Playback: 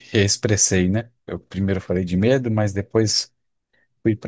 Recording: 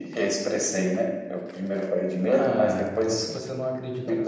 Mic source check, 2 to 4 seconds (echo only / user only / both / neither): both